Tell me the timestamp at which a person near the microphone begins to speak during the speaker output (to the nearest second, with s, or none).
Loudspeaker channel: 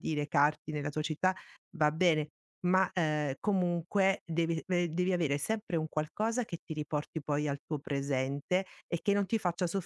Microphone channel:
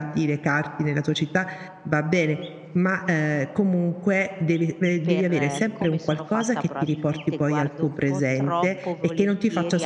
5 s